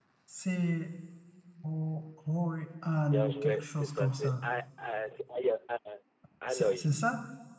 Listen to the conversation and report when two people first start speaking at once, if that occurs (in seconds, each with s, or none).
3.1 s